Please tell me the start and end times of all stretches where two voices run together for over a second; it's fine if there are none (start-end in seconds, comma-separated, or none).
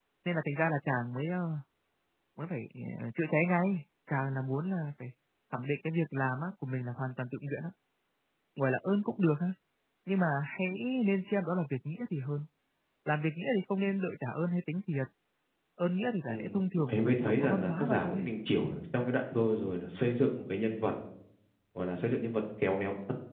16.9-18.3